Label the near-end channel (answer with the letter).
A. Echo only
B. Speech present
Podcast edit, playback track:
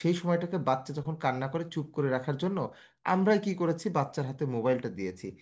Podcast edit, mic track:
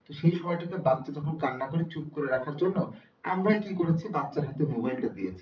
A